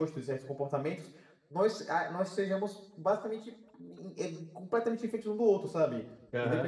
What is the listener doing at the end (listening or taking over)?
taking over